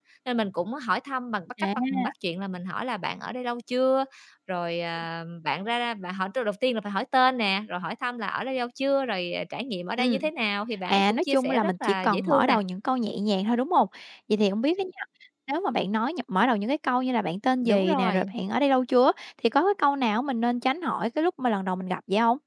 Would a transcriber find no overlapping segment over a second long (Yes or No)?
No